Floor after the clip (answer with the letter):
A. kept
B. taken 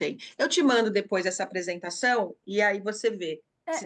B